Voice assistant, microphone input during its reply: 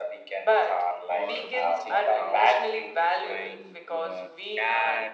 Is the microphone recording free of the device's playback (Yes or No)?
No